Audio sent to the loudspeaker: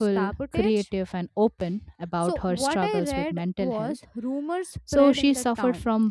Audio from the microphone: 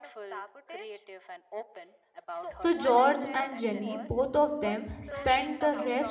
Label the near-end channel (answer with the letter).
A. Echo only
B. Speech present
B